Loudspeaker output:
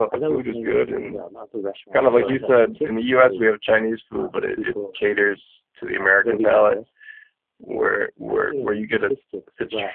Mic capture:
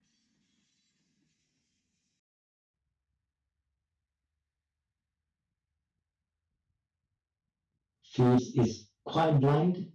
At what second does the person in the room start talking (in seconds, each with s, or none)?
8.0 s